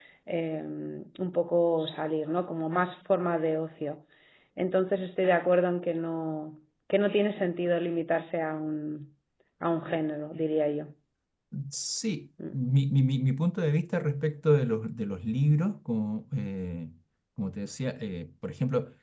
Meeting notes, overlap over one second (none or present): none